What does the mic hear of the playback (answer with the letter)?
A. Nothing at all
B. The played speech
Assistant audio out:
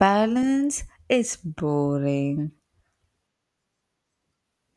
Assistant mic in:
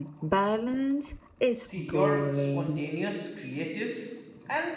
B